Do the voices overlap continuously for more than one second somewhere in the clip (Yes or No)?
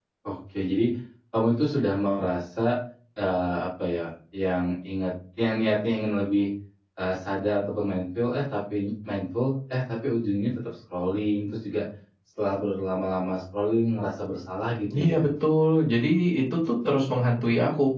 No